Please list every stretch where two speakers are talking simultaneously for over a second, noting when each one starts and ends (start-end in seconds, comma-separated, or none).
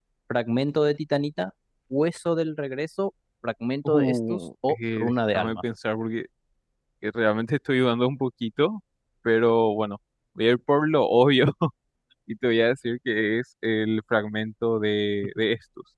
3.9-5.6